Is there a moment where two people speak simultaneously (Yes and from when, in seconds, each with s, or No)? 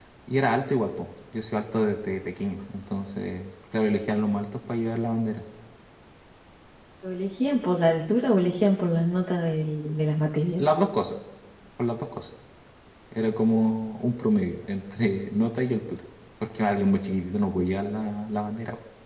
No